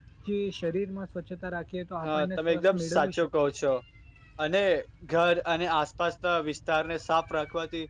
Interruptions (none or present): present